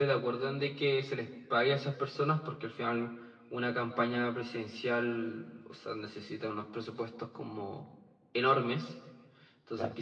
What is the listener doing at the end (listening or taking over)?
listening